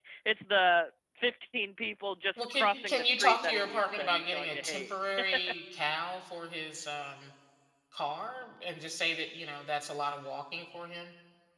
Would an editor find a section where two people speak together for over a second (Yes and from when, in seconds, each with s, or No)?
Yes, from 2.4 s